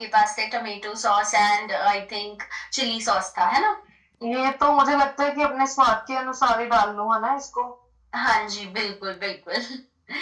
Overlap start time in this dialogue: none

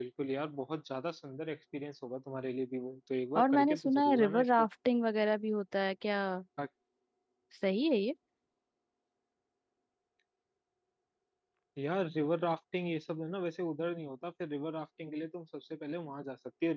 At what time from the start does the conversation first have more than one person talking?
3 s

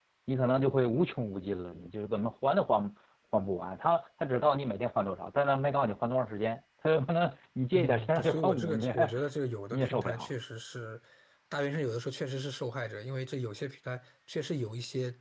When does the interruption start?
8 s

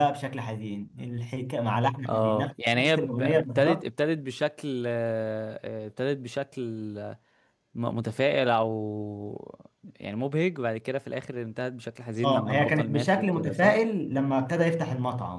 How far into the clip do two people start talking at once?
2 s

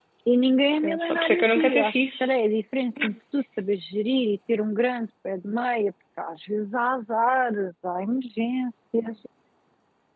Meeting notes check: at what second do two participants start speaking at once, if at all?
1 s

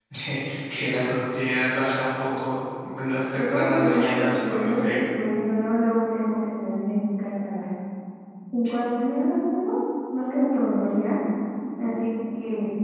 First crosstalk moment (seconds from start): 3 s

